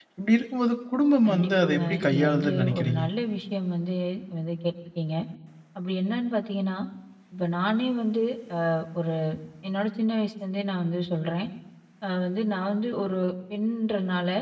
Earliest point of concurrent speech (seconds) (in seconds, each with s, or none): 1.2 s